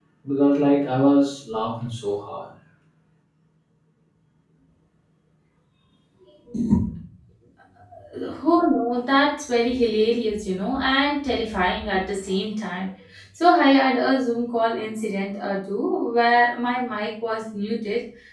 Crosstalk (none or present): none